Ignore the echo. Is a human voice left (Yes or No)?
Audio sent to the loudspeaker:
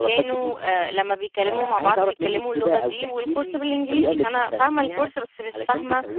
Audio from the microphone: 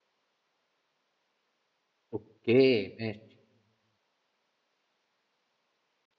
Yes